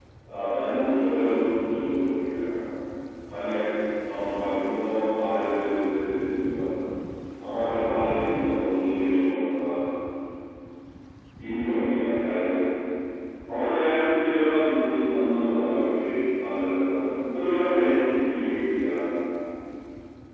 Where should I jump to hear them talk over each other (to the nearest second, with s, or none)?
none